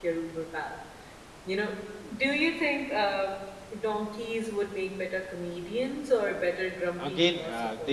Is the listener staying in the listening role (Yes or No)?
No